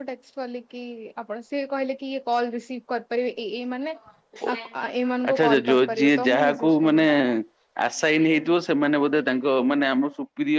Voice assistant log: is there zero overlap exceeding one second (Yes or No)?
No